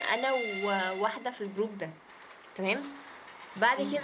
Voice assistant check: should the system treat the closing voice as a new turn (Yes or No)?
No